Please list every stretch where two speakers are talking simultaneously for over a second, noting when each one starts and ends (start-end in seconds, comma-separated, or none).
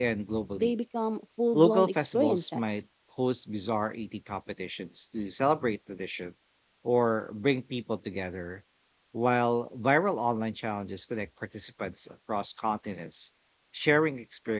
1.5-2.8